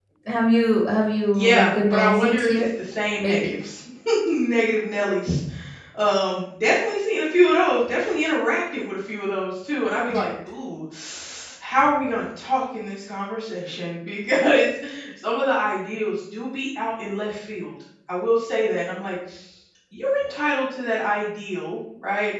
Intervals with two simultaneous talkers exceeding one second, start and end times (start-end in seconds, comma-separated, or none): 1.3-2.7